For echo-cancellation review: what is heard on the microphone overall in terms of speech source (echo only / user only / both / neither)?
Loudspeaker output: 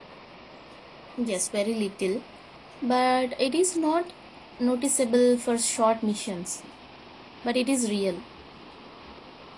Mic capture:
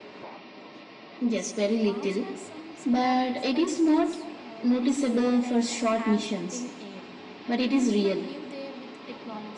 both